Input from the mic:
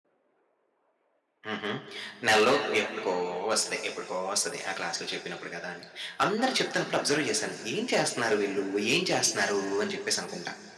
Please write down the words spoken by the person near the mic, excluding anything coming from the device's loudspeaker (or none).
హుహు. నెలలో ఎప్పటికో వస్తది. ఎప్పటికో వస్తది. ఆ క్లాస్‌లో చెప్పినప్పుడు కదా! అని. అందరూ చెప్తున్నప్పుడు అబ్జర్వ్ చేశాను. ఏం చేస్తున్నారు వీళ్ళు? ఏం చేస్తున్నారు? అని చెప్పేసనుకుంట.